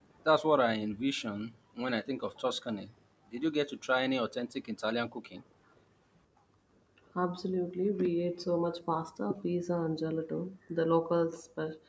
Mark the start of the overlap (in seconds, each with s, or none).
none